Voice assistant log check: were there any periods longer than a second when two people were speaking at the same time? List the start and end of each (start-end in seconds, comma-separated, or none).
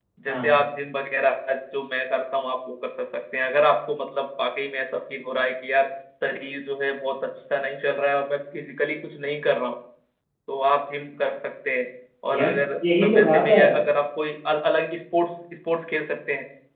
12.3-13.6